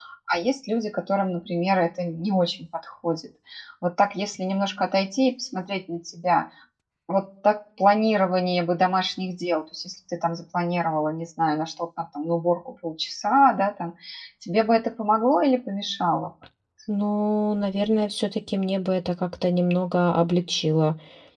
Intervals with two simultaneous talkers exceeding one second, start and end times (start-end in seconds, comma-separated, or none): none